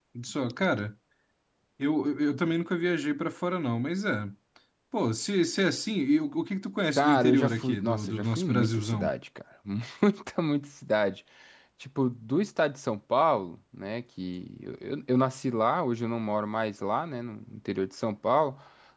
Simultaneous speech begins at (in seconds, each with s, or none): 7.0 s